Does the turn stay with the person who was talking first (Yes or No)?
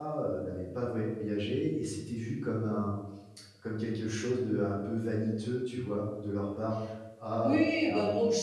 No